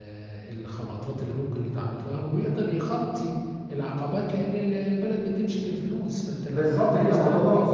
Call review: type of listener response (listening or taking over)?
taking over